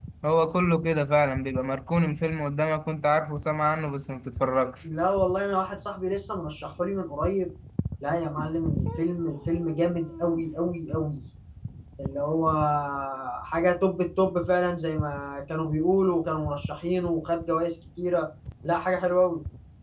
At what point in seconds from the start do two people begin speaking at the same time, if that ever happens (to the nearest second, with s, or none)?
none